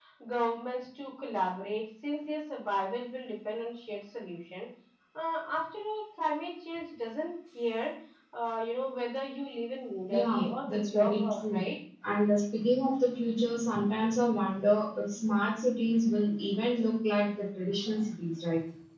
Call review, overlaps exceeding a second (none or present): present